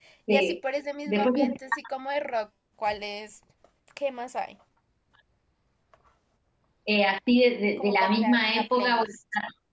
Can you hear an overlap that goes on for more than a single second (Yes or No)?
Yes